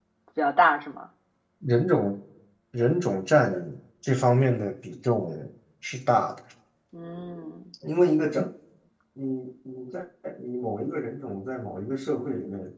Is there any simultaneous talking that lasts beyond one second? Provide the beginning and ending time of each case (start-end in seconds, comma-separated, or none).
none